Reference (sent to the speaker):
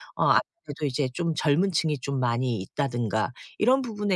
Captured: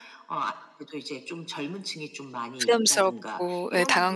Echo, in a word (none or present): present